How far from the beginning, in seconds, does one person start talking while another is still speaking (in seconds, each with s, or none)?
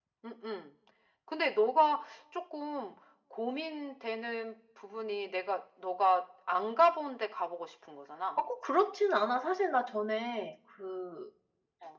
none